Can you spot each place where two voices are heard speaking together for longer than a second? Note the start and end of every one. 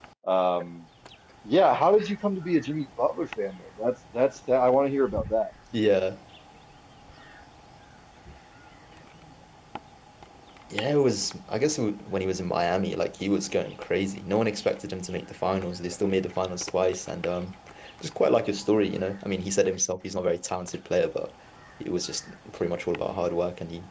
none

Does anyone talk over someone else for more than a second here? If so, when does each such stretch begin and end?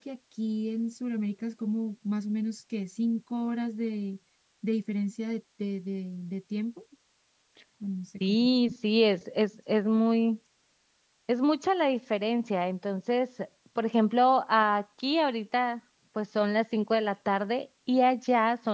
none

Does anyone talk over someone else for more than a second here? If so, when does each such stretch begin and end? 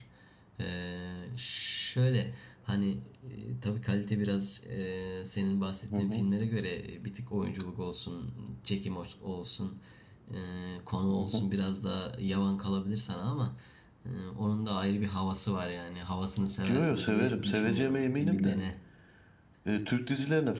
16.6-18.6

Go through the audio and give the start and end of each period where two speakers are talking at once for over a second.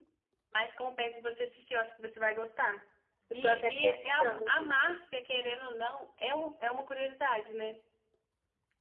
3.3-4.7

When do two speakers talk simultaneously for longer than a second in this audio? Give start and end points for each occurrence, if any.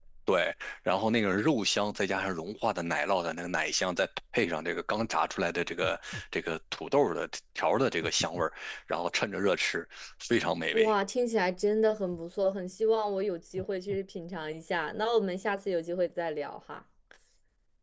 none

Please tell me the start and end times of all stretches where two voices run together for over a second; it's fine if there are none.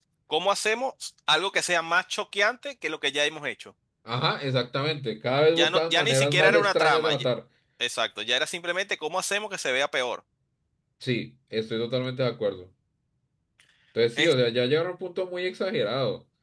5.6-7.2

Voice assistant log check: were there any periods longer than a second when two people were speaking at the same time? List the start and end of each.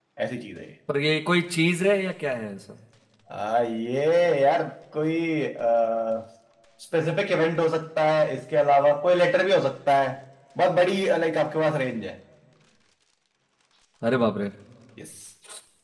none

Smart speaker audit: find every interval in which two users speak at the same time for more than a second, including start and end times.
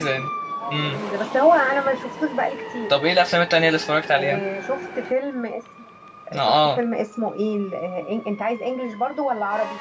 none

